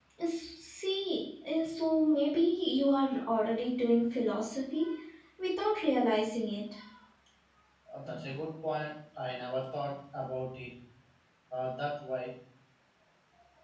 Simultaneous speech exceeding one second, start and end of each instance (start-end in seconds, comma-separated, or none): none